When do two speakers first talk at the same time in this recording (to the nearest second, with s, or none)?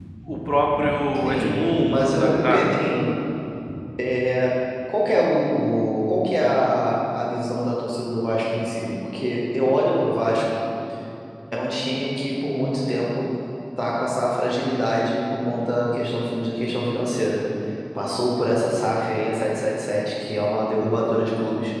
1 s